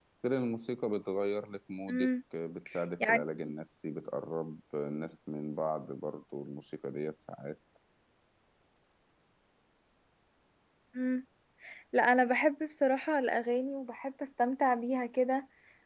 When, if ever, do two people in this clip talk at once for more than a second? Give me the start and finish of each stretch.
none

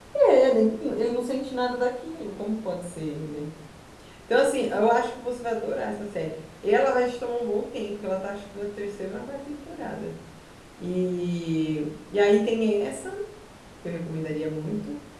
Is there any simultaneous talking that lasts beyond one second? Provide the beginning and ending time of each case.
none

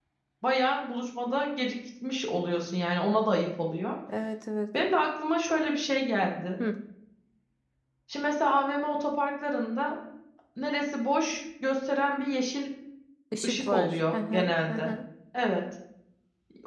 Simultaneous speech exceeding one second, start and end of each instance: 13.4-14.9

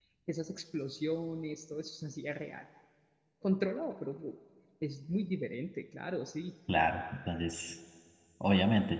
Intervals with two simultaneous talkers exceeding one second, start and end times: none

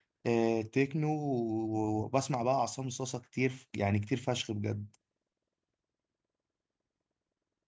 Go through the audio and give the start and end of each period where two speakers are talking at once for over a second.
none

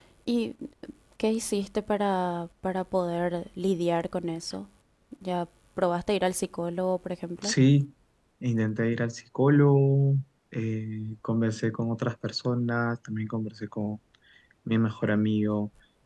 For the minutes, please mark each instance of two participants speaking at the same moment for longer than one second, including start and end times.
none

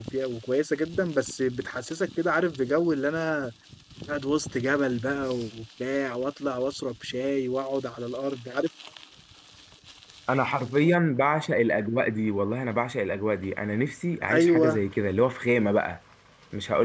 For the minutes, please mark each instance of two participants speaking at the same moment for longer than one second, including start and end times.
none

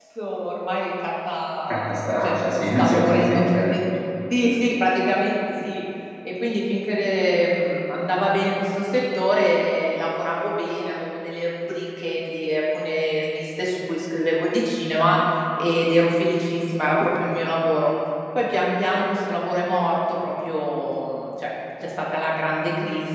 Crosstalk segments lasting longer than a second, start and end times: 1.7-3.8

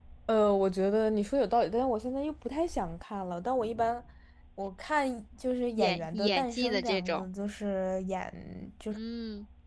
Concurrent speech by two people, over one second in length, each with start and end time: 5.8-7.3

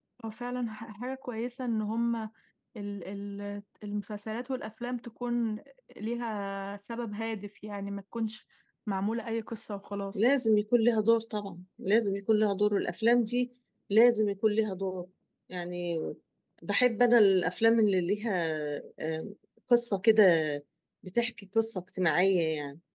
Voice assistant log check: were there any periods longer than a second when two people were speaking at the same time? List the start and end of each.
none

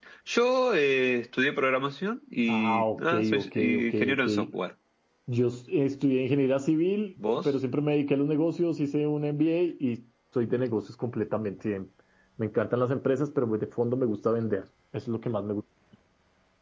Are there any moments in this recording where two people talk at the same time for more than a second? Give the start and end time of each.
2.5-4.3

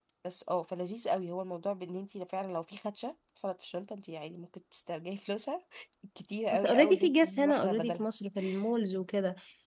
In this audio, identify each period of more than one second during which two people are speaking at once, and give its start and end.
6.5-8.0

